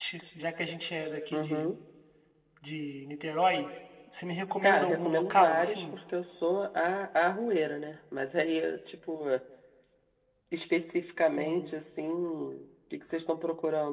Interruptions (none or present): present